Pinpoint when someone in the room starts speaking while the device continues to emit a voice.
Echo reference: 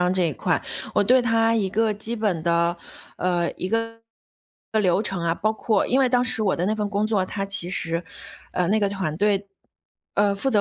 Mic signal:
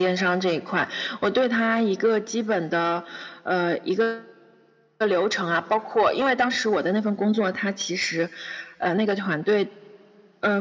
none

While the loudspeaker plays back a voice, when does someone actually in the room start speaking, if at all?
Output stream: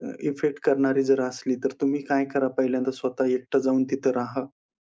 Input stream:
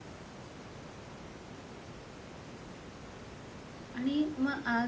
3.9 s

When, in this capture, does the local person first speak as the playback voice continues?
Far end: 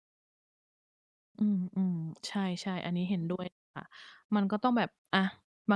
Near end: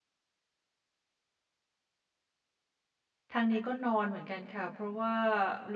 3.3 s

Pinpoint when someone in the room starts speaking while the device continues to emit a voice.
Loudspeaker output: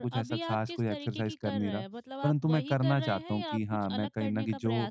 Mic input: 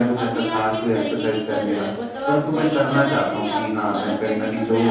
none

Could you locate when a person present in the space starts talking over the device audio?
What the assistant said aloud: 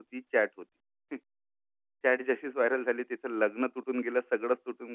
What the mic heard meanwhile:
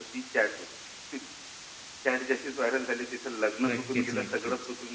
3.7 s

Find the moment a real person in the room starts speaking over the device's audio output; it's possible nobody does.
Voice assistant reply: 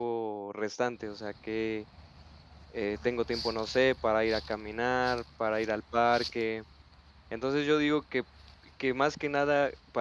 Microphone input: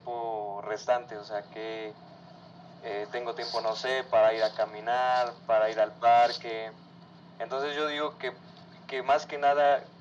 none

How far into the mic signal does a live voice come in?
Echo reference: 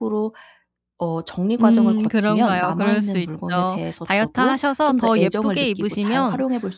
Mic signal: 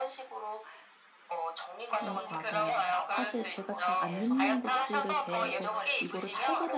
2.0 s

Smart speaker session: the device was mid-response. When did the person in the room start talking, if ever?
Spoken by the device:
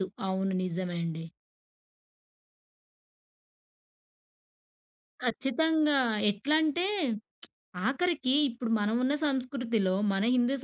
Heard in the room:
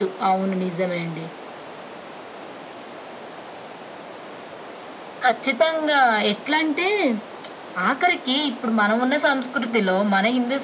none

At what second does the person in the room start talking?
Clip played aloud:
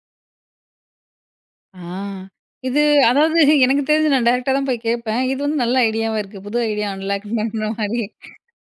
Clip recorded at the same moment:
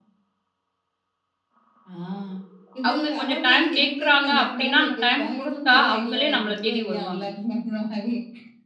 2.9 s

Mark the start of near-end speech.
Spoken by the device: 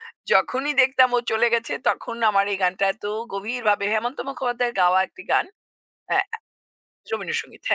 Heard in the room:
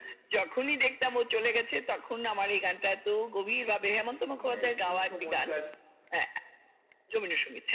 4.4 s

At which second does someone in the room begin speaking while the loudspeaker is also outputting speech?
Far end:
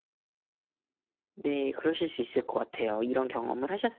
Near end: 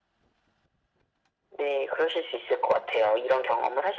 none

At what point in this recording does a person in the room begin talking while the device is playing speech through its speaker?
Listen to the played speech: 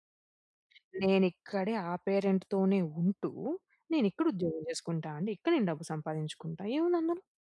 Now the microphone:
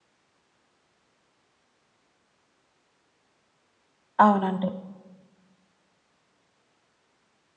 4.2 s

